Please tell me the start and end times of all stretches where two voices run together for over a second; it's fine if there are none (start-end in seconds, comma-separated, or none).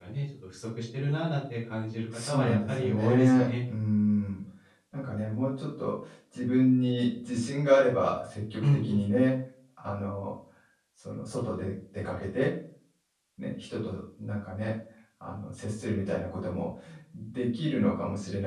2.1-3.5